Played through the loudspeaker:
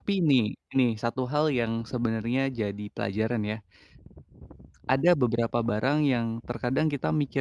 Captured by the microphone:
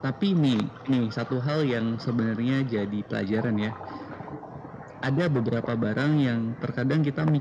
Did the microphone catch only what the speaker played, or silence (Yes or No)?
Yes